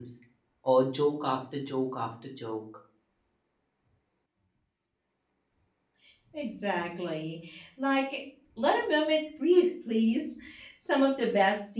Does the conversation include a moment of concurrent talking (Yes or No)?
No